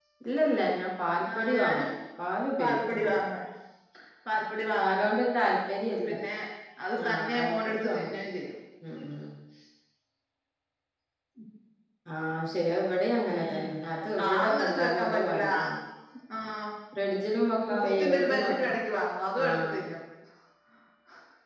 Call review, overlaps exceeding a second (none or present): present